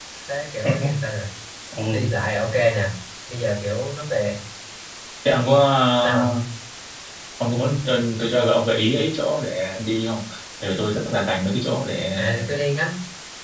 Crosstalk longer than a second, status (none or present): none